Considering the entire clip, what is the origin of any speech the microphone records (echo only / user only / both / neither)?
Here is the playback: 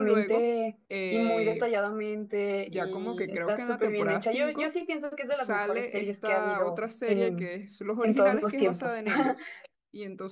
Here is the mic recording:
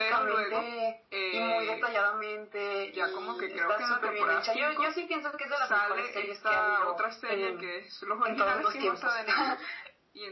echo only